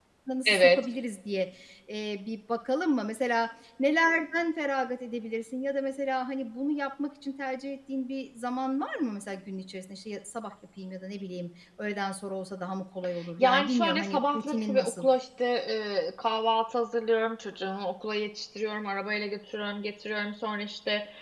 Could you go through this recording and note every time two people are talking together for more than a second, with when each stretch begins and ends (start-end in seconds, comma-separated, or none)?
13.4-15.1